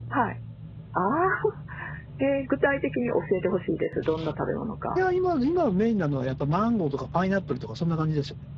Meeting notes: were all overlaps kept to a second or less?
Yes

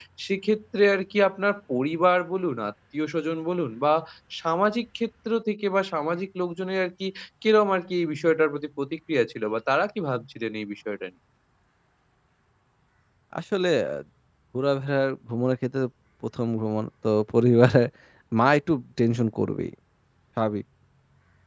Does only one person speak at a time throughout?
Yes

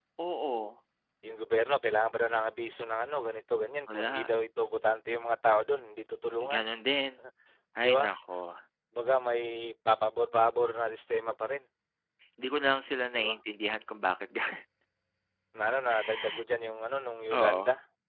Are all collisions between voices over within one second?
Yes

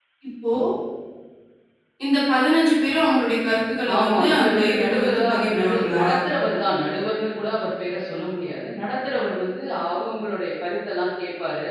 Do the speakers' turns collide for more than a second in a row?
Yes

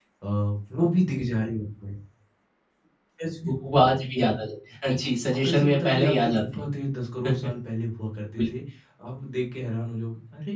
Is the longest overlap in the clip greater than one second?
Yes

